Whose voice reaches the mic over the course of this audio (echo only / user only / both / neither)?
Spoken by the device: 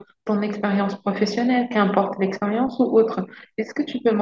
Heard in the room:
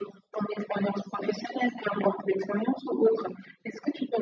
echo only